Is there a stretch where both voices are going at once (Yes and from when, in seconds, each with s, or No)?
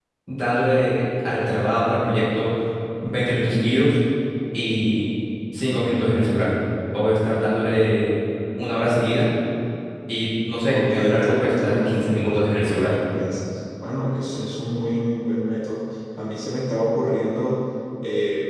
Yes, from 10.7 s